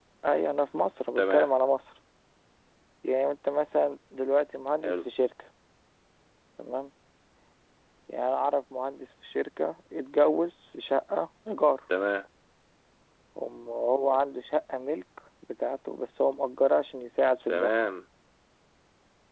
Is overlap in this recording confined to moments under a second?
Yes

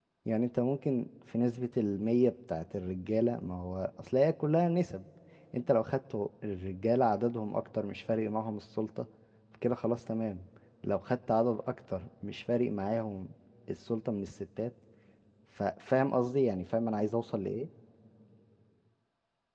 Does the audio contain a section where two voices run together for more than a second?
No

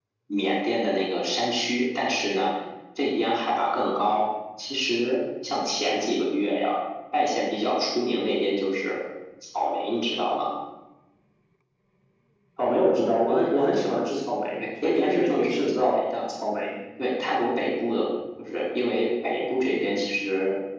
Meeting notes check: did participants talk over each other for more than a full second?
Yes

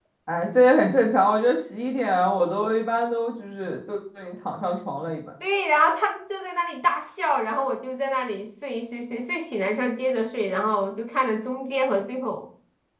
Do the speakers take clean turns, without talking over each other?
Yes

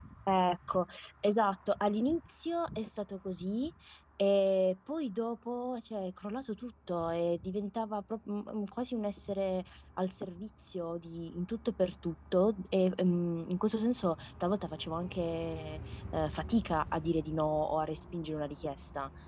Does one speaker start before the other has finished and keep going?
No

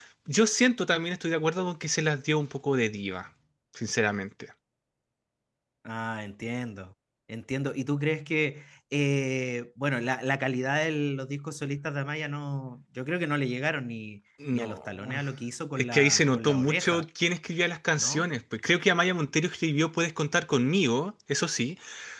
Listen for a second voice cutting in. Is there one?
Yes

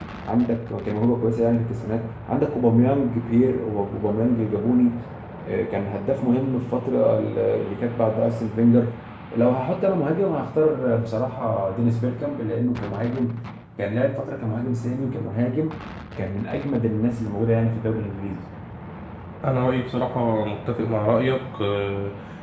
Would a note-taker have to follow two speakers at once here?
No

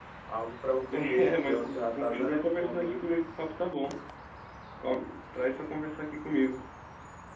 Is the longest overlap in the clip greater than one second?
Yes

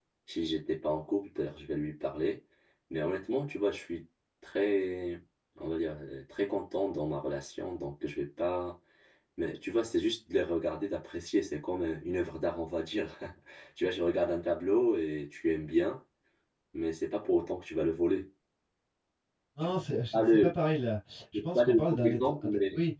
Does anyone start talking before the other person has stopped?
Yes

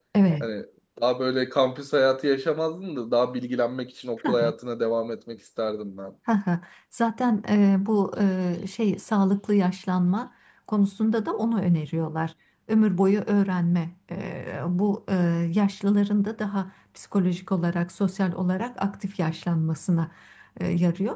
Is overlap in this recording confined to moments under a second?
Yes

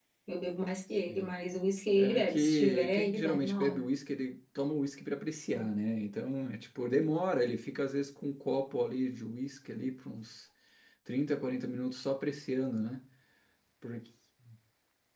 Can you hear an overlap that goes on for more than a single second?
Yes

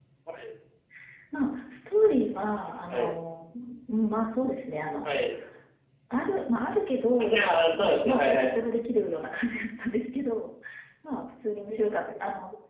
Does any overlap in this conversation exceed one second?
Yes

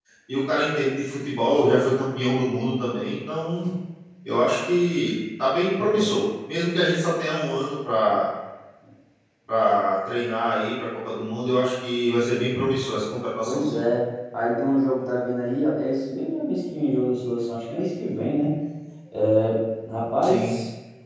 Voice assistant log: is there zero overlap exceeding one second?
Yes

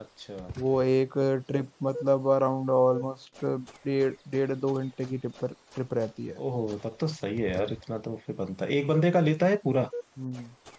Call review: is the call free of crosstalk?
Yes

